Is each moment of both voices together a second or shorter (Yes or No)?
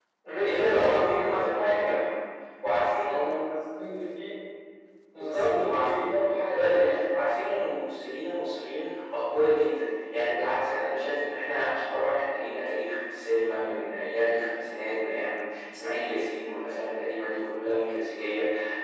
No